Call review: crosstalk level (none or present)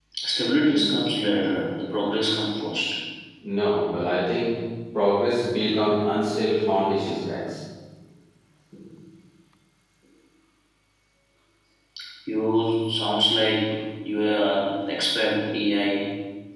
none